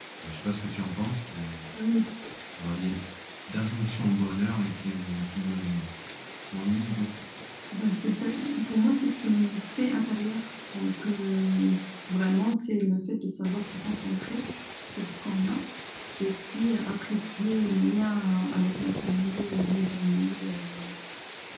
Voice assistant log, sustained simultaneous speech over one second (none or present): none